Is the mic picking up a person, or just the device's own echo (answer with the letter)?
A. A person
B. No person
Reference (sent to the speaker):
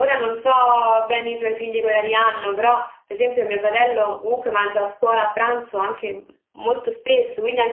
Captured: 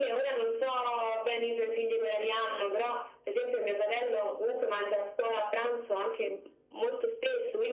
B